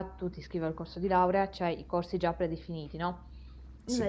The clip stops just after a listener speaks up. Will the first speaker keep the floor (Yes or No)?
Yes